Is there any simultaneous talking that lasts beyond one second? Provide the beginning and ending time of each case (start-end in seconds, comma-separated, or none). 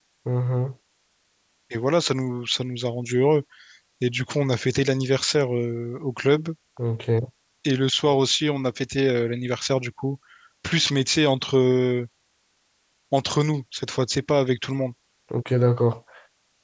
none